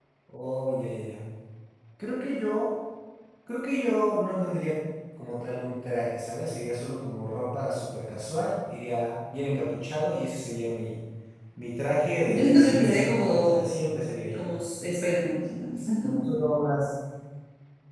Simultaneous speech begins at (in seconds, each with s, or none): 12.3 s